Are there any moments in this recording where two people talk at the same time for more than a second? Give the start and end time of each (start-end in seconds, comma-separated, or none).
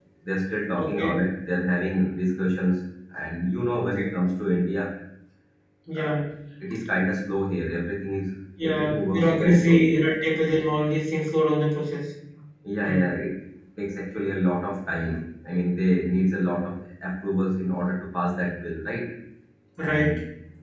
8.6-9.9